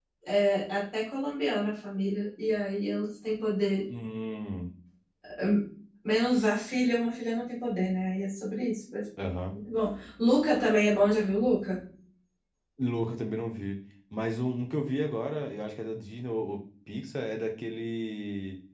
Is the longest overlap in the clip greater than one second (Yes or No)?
No